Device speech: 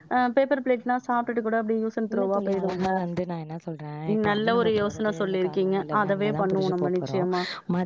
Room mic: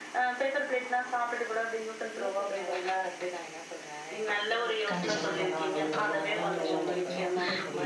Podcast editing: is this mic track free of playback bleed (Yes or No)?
No